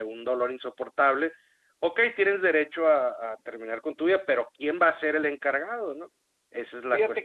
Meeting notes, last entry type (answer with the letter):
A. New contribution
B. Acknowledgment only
A